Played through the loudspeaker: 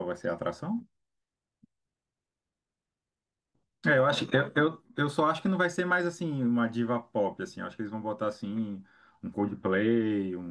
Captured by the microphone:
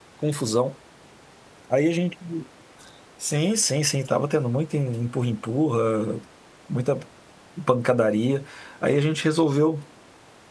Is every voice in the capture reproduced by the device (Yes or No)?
No